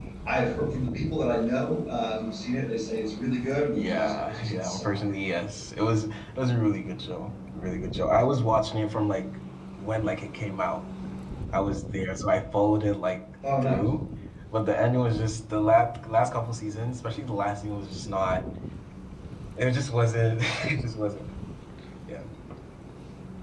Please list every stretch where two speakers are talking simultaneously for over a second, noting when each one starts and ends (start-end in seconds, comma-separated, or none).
3.8-5.0